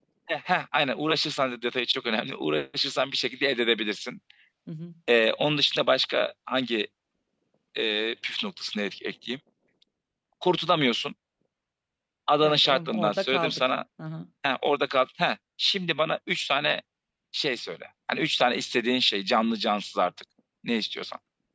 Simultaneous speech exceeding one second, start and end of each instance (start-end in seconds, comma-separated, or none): 12.4-13.7